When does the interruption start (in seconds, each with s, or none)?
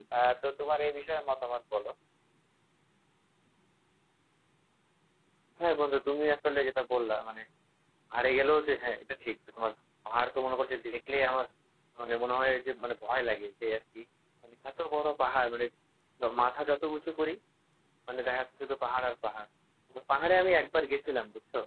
none